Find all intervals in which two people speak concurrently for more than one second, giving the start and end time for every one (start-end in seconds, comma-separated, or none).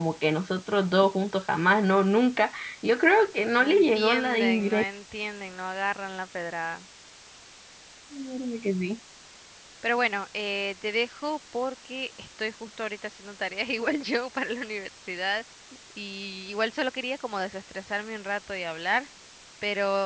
3.6-4.8